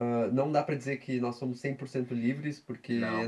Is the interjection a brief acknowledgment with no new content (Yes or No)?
Yes